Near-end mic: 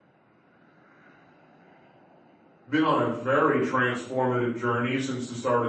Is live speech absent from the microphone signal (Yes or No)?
No